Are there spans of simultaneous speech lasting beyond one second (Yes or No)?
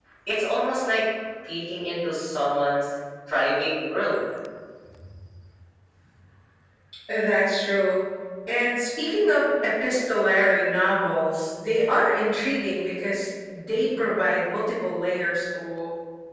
No